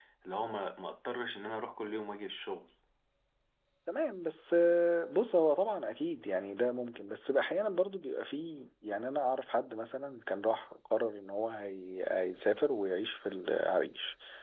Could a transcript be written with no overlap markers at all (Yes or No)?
Yes